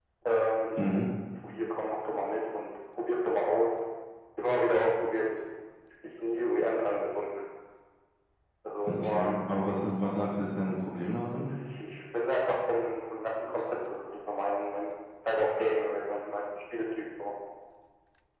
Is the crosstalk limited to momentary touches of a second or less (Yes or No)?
Yes